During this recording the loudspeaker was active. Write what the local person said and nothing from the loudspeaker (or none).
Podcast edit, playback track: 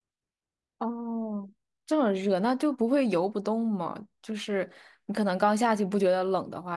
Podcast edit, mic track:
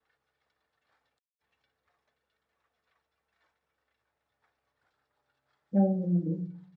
嗯，